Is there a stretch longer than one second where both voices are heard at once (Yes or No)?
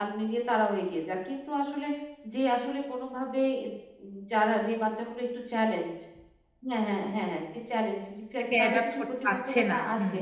Yes